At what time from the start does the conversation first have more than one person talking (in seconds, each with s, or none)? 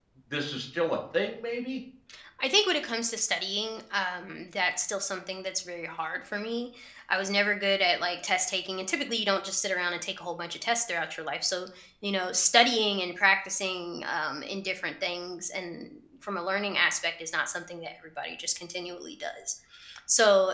none